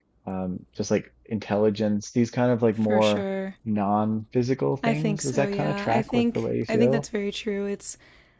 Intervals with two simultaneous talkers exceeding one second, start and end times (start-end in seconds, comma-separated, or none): 4.8-7.0